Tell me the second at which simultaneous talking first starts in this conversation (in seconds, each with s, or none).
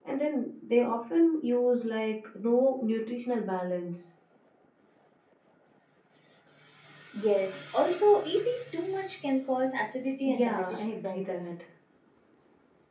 10.2 s